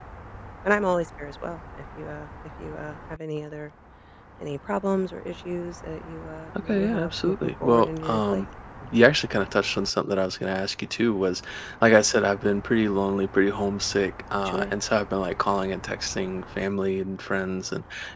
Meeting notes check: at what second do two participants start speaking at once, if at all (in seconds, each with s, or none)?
6.7 s